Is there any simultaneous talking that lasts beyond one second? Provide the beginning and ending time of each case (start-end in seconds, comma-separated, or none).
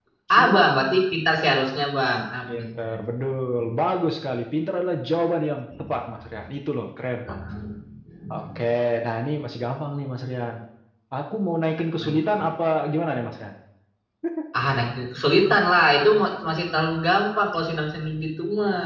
none